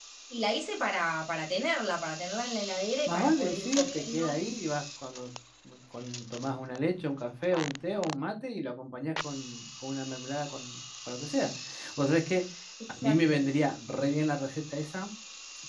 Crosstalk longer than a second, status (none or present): present